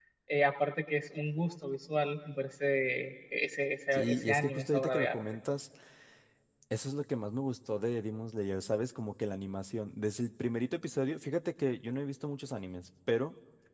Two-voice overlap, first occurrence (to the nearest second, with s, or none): 4 s